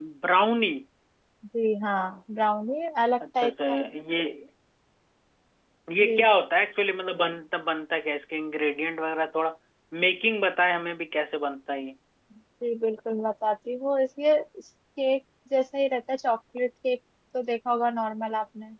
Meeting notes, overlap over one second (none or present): none